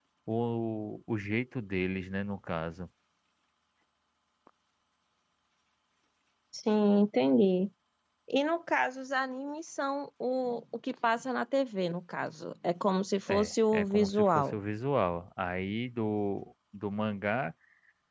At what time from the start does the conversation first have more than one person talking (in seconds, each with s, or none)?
13.3 s